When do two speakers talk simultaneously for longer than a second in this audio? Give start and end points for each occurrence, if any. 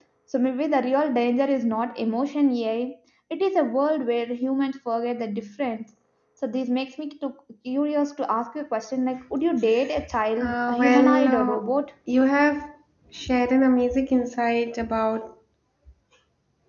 10.4-11.6

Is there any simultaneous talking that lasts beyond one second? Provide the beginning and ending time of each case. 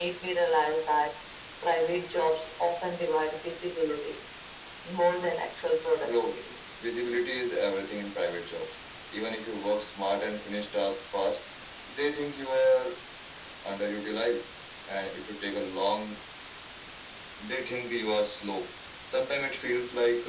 none

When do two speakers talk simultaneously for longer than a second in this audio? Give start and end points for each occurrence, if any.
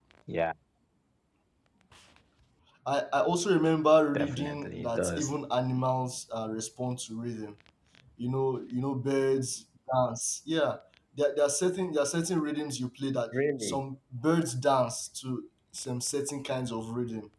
4.1-5.4

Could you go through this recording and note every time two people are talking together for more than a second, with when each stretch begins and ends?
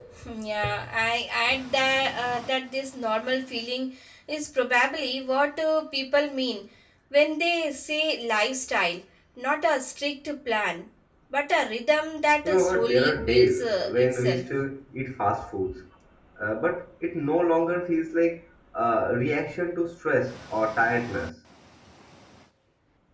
12.4-14.4

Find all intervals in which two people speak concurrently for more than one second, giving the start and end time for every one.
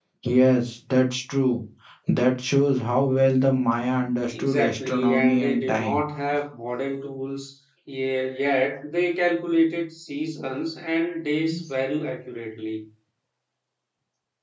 4.3-6.0

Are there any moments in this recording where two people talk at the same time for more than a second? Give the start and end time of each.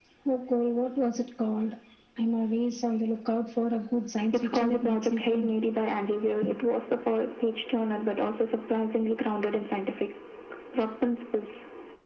4.3-5.6

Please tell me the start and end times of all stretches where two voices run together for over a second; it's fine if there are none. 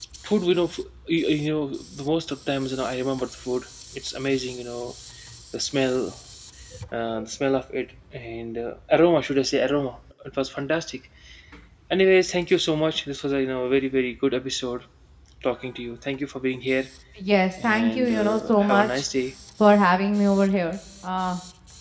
17.6-19.0

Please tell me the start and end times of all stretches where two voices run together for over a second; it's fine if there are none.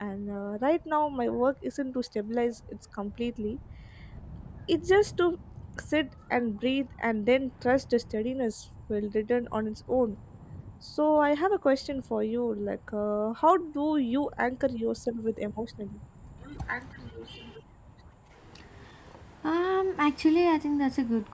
none

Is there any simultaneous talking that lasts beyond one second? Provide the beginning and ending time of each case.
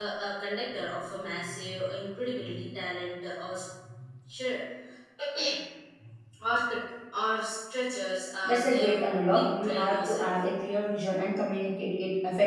8.4-10.3

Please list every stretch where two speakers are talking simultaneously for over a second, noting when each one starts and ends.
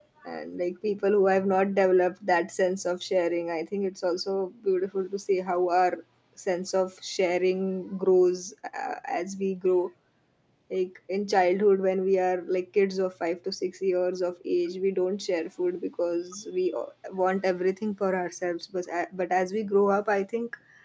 none

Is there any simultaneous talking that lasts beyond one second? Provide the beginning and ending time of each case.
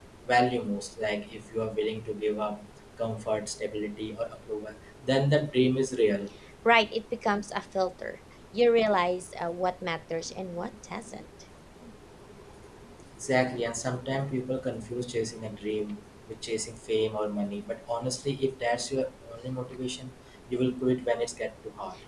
none

